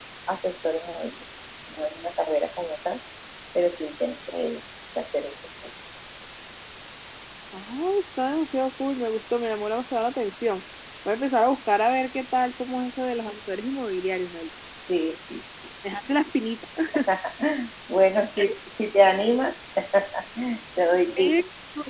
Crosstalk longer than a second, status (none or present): none